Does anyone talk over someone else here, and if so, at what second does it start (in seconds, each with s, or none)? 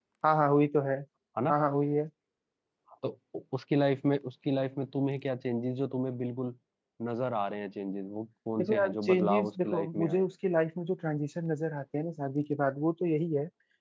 8.6 s